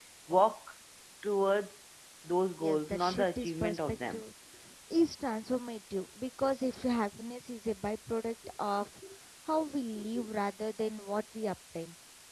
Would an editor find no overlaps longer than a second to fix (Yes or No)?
No